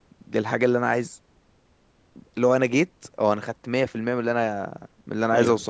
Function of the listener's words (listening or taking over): taking over